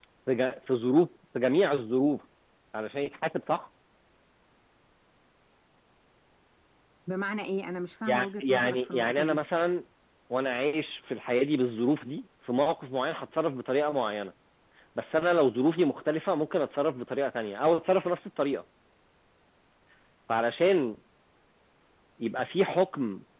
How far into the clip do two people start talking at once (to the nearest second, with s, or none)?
8 s